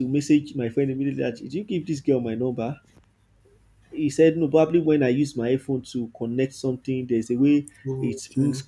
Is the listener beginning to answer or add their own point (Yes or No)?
No